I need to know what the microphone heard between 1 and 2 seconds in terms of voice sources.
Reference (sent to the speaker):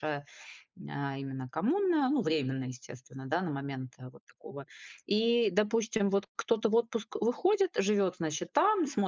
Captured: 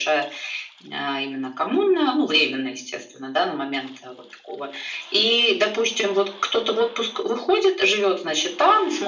echo only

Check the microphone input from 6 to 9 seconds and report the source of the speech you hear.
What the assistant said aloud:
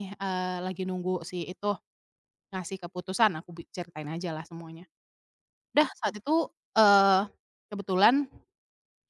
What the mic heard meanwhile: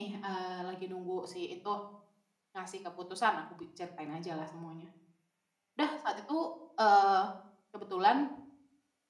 echo only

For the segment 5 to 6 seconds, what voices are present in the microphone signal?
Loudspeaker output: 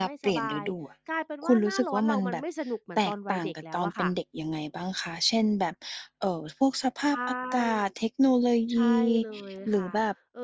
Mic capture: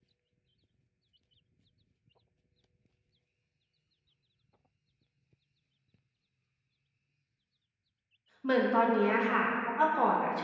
neither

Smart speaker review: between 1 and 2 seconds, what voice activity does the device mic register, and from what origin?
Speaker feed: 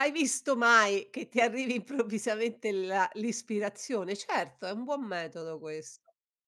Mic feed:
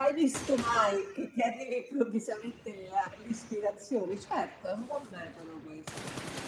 echo only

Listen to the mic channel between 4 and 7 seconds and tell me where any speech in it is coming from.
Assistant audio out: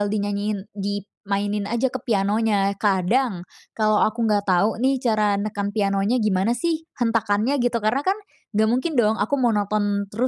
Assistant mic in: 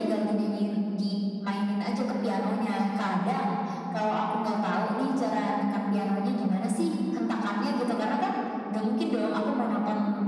echo only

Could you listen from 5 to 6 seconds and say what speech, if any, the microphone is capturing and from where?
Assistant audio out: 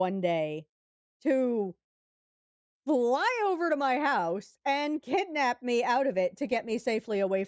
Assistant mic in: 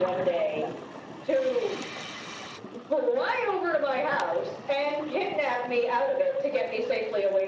echo only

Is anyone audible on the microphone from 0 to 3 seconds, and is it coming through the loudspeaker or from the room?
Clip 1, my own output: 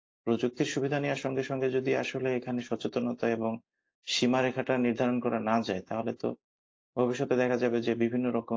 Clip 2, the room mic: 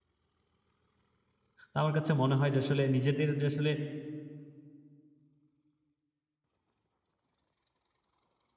user only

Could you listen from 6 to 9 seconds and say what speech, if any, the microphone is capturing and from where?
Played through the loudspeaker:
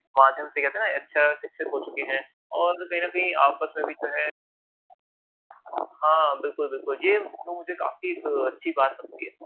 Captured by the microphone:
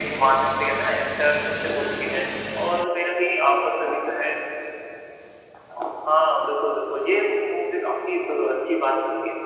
echo only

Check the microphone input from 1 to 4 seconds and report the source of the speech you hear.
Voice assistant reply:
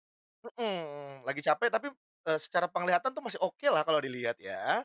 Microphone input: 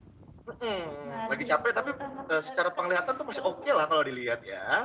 both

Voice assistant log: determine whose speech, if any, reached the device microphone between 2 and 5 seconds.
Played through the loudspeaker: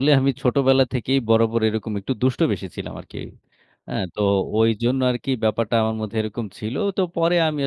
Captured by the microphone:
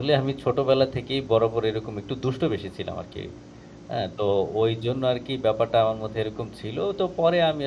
echo only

